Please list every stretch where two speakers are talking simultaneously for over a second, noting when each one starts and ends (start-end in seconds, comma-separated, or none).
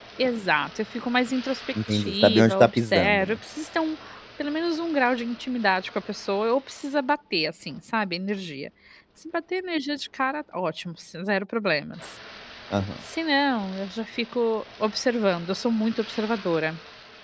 1.9-3.4